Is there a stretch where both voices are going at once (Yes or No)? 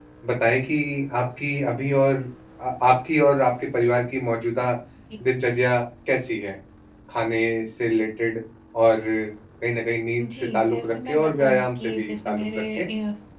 Yes